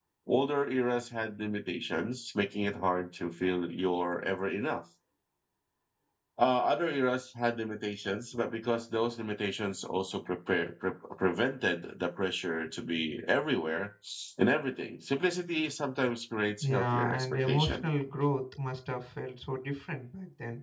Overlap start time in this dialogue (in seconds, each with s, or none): 16.6 s